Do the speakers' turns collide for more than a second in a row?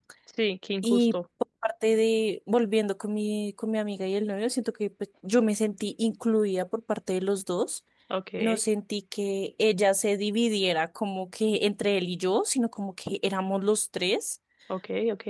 No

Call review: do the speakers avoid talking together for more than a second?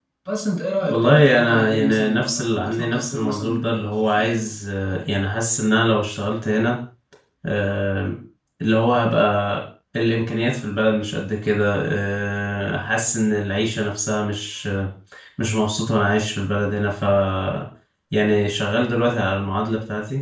No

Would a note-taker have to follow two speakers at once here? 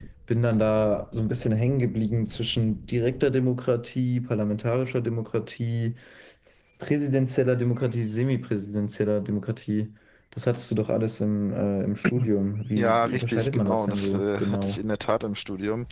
Yes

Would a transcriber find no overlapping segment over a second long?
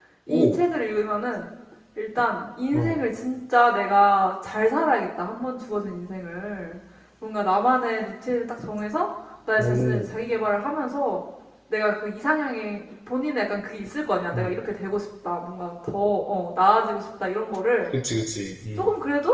Yes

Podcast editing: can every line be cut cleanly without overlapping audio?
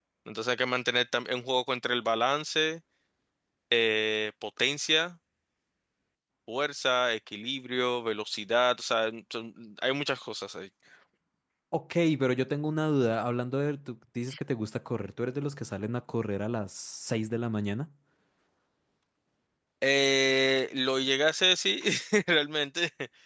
Yes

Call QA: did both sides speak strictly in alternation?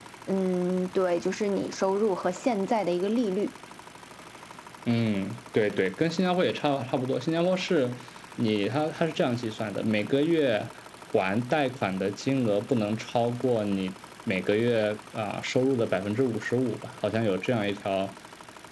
Yes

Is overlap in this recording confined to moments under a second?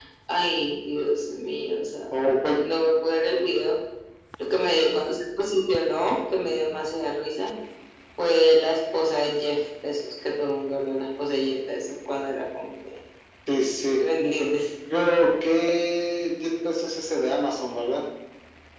Yes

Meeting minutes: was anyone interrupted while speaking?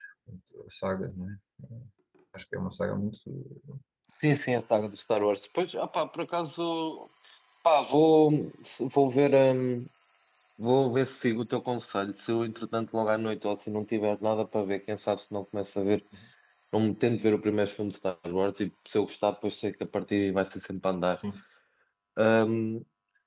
No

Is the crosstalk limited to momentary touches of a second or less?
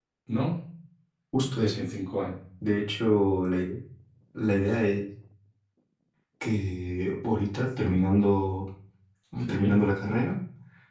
Yes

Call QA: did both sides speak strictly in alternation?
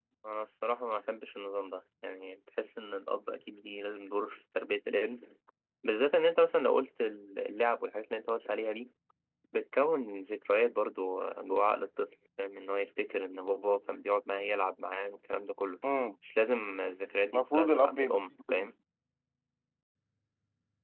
No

